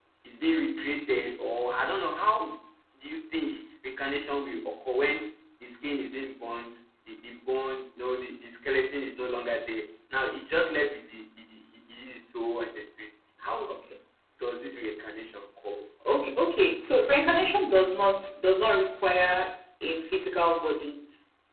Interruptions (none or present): none